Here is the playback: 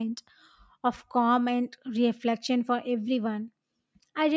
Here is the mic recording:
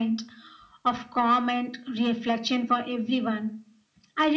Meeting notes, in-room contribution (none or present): none